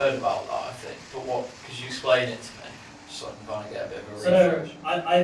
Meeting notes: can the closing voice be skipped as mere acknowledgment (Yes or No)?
No